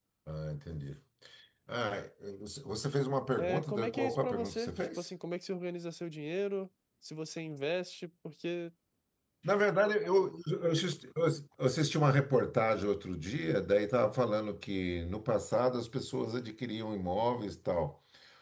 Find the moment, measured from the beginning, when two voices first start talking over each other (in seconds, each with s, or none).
3.4 s